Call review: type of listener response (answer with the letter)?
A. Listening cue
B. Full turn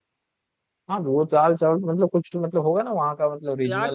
B